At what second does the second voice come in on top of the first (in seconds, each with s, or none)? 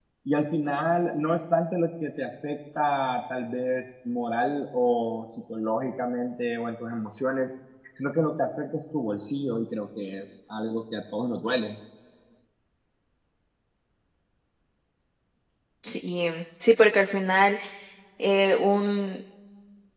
none